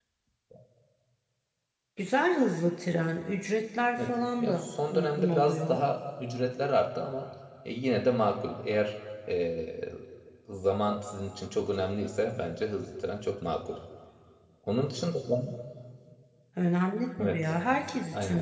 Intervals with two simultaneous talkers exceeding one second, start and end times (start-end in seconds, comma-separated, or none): 4.0-5.8